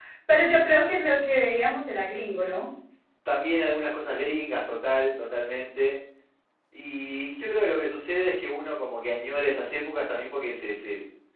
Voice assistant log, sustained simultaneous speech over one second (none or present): none